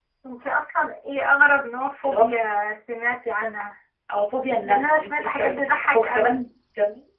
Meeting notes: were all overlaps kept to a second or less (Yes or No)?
No